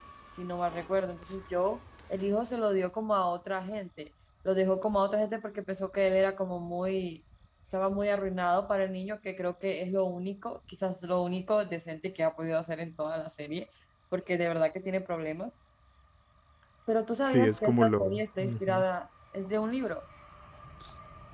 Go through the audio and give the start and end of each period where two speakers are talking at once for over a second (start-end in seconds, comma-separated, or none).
17.2-18.8